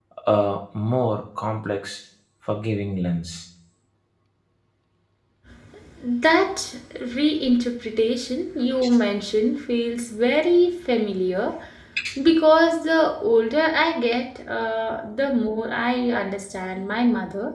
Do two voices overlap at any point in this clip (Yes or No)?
No